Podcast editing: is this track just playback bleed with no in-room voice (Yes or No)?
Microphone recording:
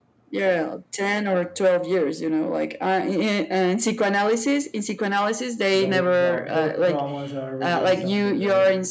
No